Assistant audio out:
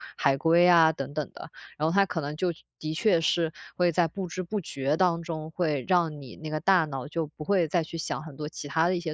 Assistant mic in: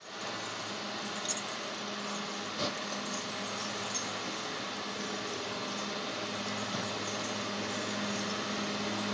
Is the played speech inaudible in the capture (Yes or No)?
Yes